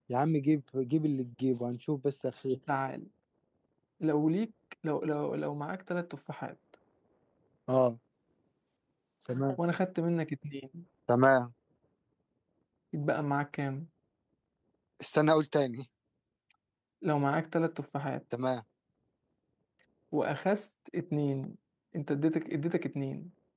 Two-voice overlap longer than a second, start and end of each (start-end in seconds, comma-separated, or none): none